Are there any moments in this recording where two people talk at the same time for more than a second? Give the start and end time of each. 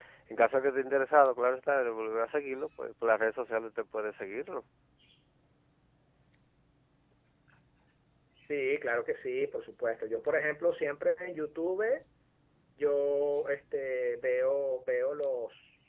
none

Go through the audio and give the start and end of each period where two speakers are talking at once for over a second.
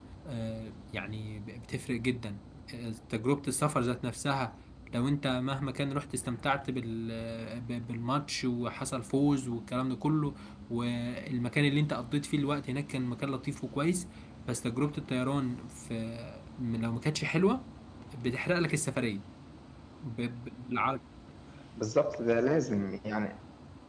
none

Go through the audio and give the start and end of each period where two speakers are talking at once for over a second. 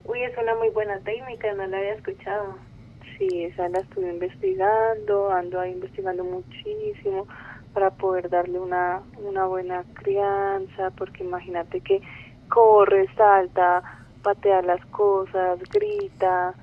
none

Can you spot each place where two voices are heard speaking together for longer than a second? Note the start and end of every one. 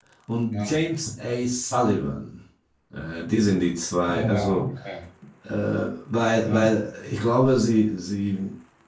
none

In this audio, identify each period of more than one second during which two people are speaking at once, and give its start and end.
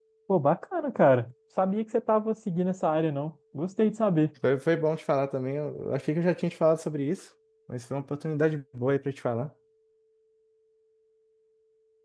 none

